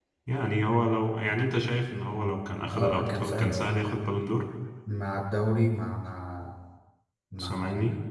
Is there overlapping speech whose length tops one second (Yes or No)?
Yes